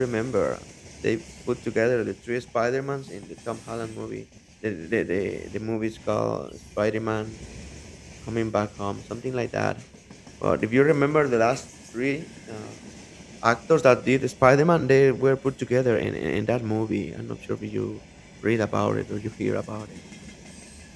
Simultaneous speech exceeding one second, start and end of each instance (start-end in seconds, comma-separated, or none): none